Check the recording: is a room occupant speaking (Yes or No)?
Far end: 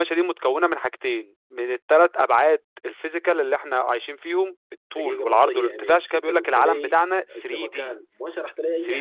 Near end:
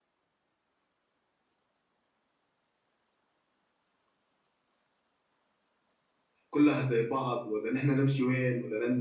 Yes